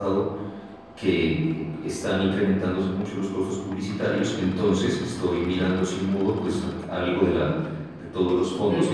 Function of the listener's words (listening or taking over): taking over